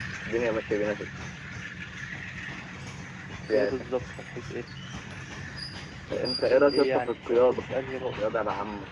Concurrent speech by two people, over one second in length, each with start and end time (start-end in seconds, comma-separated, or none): 6.1-7.6